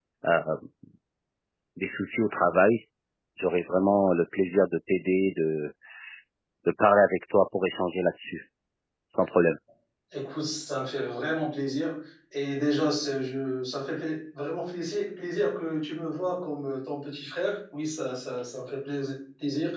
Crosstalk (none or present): none